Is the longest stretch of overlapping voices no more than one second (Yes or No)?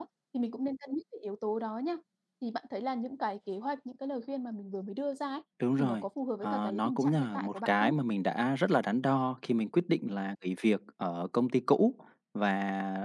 No